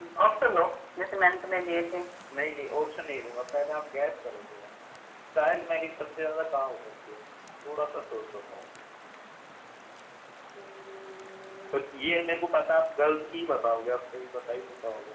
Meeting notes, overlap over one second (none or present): none